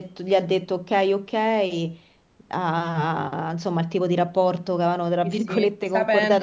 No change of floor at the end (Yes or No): No